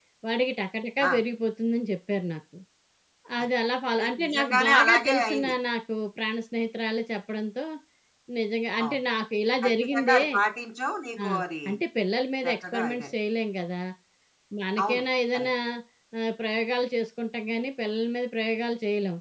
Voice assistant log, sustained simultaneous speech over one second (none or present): present